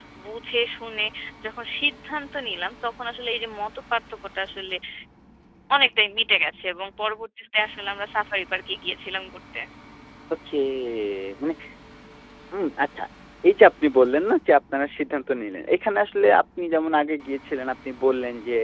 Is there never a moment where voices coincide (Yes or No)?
Yes